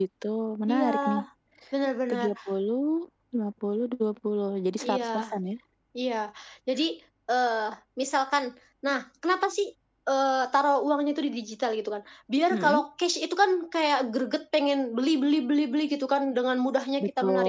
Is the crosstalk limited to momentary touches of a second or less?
Yes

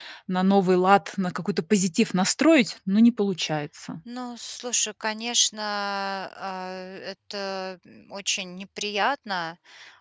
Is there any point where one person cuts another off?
No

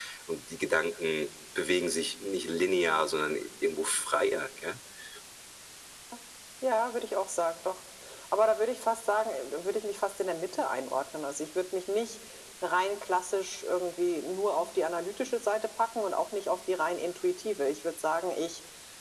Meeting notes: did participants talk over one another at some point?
No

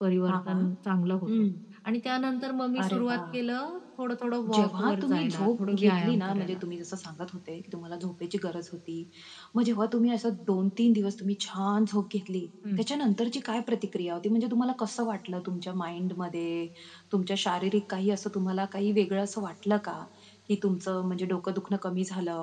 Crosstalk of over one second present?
Yes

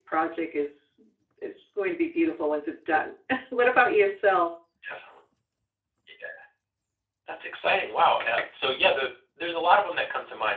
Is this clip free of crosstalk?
Yes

